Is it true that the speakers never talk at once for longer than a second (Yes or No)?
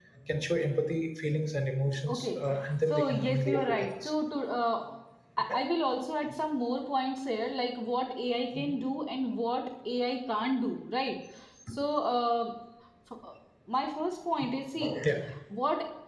No